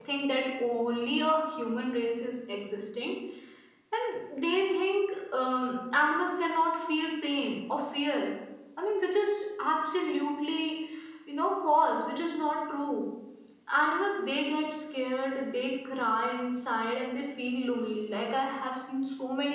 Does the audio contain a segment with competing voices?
No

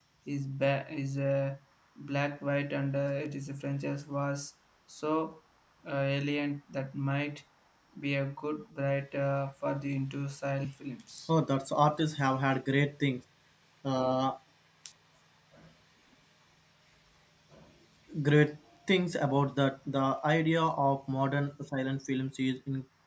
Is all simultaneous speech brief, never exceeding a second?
Yes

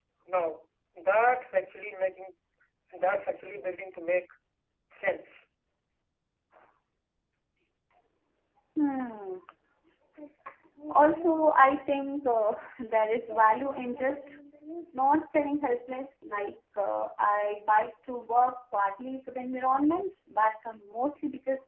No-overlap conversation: Yes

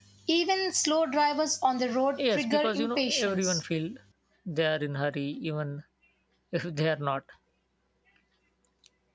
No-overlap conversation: No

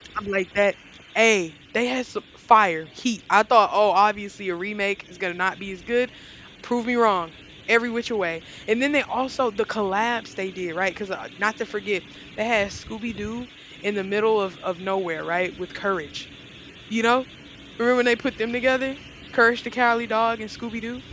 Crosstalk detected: No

